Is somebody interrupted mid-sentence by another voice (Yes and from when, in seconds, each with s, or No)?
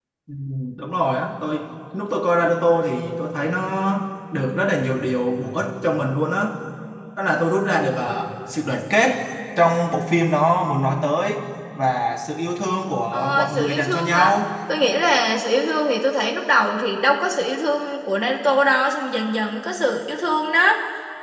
Yes, from 13.1 s